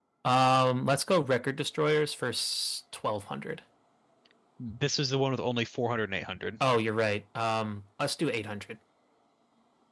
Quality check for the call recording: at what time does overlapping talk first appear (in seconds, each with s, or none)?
none